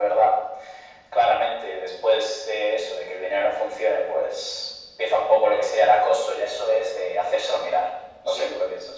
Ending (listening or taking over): taking over